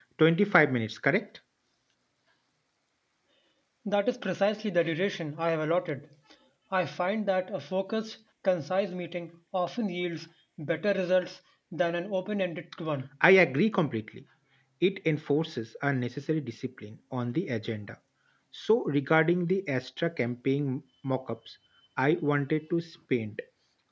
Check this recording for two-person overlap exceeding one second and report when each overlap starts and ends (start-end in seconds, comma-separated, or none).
none